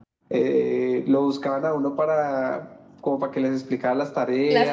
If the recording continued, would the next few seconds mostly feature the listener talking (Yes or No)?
No